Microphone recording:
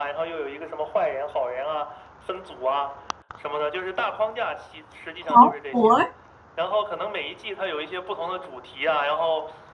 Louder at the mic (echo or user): user